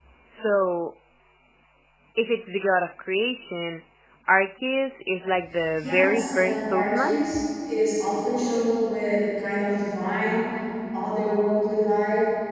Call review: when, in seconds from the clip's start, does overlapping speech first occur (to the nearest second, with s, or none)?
6 s